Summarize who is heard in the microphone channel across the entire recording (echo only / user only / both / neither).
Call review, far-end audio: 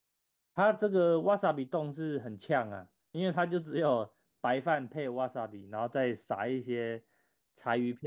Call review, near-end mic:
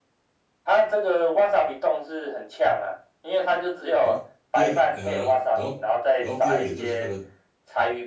both